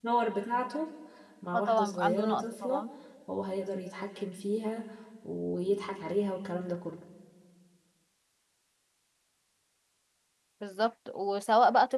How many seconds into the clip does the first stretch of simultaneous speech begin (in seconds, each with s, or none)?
1.5 s